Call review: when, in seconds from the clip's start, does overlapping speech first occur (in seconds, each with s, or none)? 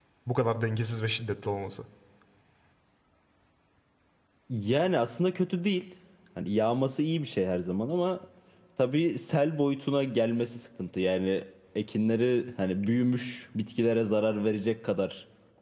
none